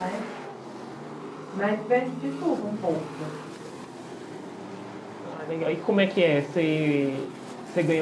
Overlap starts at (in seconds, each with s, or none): none